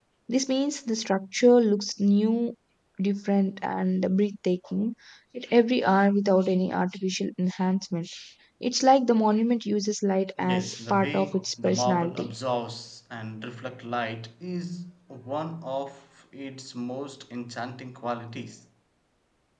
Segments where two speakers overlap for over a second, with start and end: 10.4-12.3

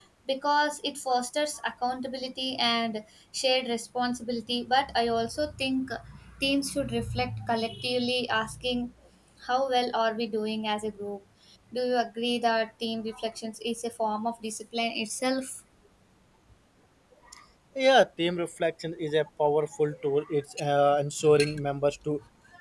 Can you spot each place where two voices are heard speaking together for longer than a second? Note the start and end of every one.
none

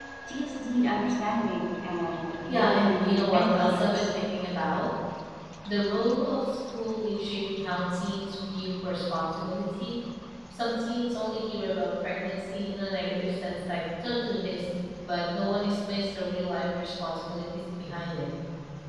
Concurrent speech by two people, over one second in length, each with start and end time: 2.5-4.0

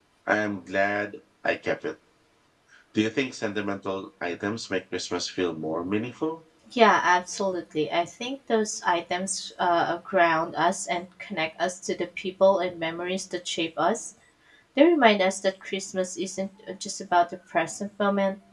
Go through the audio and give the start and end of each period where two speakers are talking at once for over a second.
none

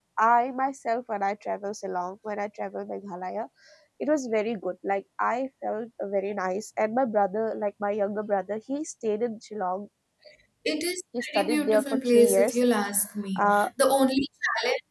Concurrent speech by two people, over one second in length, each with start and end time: 11.2-12.6

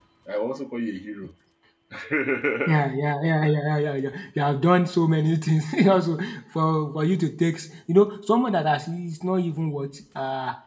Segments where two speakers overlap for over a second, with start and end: none

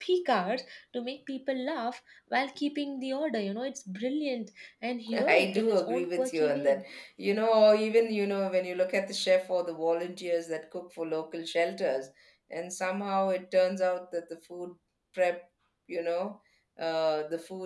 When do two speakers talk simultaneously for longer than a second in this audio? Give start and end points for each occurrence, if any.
5.1-6.8

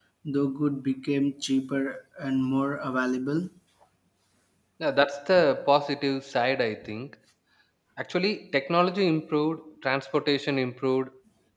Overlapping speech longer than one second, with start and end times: none

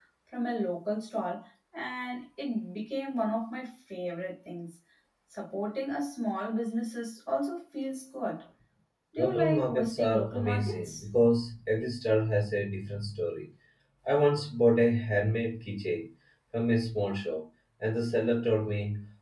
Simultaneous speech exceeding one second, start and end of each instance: 9.2-11.0

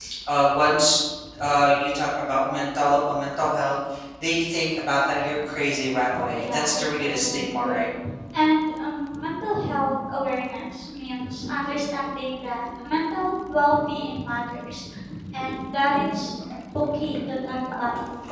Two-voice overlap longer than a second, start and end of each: 6.3-7.9

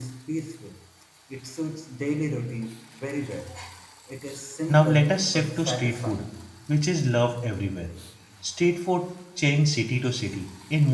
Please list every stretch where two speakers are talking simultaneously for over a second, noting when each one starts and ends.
4.7-6.2

